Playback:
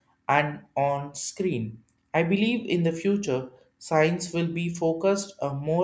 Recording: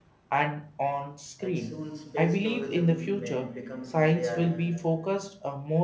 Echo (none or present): present